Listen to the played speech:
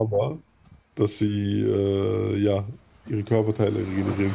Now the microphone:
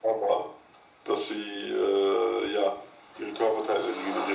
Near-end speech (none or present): none